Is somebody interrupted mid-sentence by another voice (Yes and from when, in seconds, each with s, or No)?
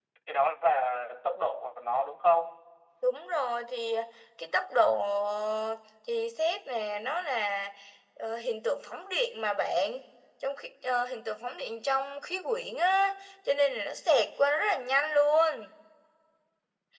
No